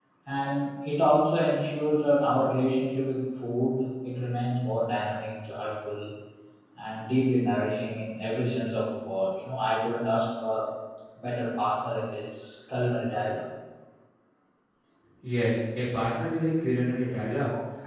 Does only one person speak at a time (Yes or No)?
Yes